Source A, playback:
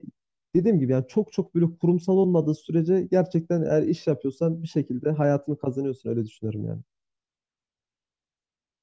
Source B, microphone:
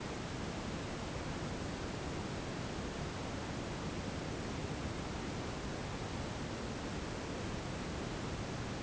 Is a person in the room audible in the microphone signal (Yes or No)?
No